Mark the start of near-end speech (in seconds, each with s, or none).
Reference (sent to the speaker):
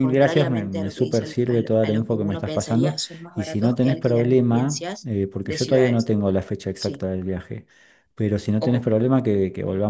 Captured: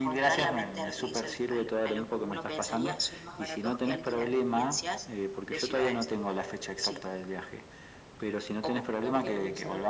9.0 s